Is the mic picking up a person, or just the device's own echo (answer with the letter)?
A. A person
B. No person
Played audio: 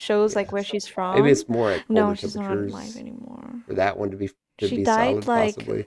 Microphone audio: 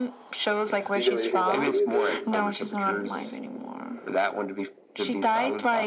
A